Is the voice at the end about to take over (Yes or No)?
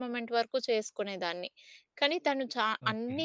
No